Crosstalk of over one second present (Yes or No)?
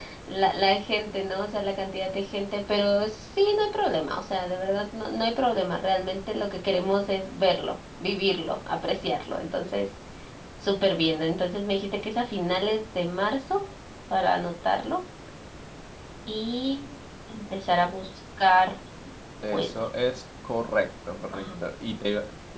No